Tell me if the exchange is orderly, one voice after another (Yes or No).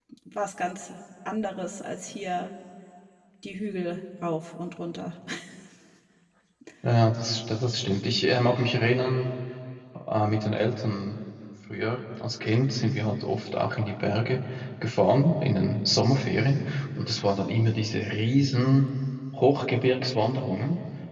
Yes